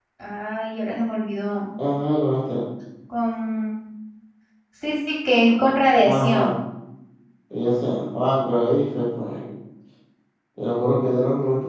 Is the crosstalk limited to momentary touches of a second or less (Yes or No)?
Yes